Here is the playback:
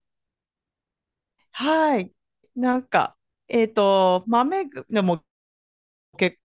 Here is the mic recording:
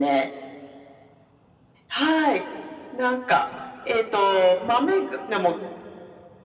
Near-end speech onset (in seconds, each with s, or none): none